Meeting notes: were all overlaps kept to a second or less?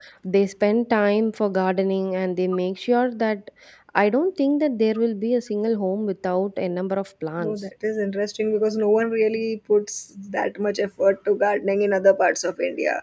Yes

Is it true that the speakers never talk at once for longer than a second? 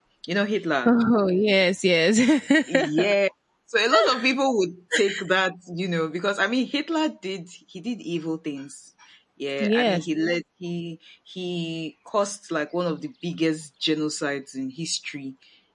Yes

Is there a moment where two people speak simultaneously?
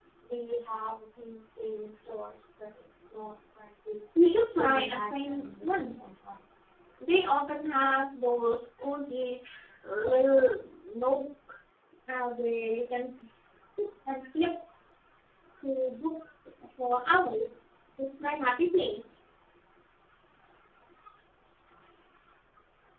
Yes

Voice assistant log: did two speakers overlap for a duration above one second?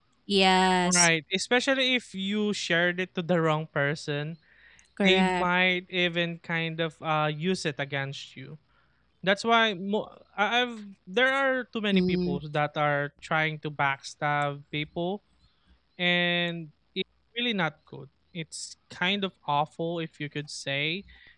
No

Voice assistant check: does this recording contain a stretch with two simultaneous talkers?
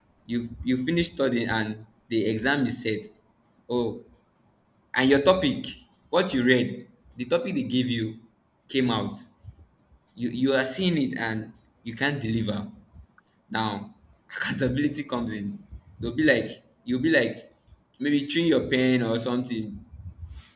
No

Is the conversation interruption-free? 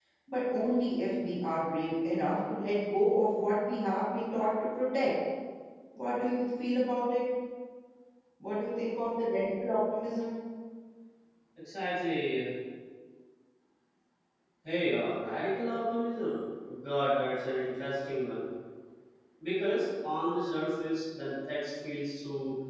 Yes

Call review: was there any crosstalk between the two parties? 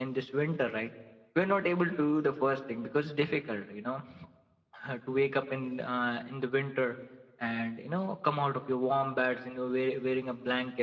No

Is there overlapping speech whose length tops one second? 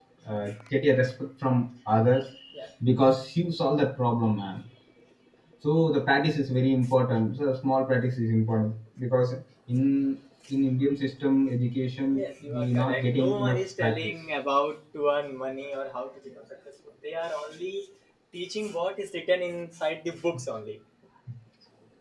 Yes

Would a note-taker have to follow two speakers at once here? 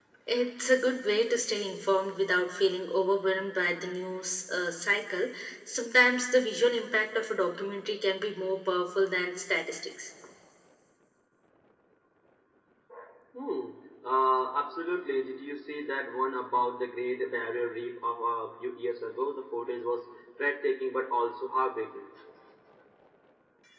No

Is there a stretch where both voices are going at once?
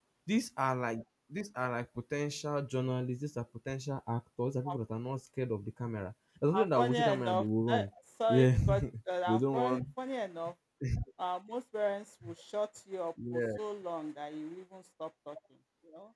Yes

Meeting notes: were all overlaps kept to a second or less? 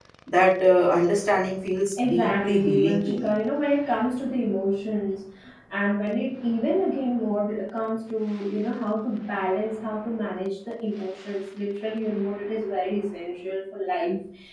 No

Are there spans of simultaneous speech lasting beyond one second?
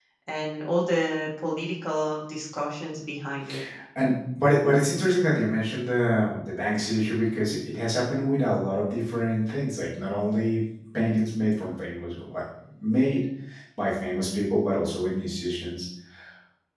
No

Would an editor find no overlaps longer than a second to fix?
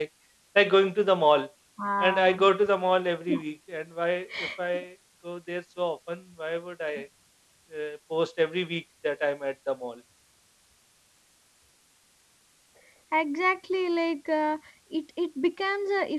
Yes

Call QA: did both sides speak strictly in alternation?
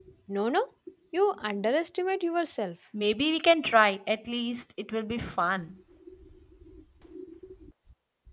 Yes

